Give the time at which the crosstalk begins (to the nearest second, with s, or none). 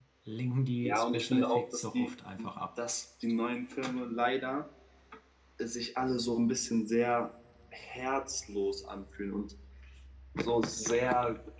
1 s